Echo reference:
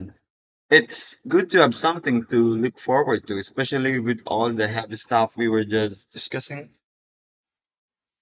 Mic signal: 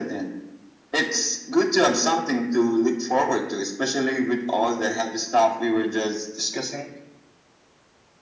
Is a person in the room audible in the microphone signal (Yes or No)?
No